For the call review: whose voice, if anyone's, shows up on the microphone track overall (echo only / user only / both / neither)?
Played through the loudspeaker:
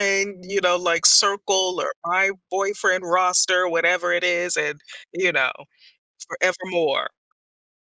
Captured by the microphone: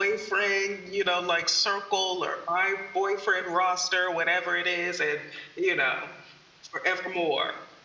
echo only